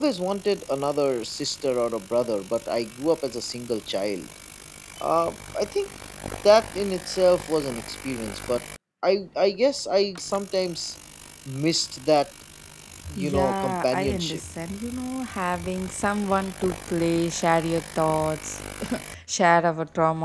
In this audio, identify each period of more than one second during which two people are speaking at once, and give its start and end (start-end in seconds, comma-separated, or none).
13.1-14.4